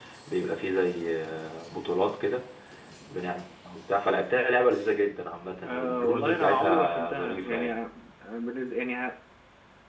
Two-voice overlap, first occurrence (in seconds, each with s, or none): 5.6 s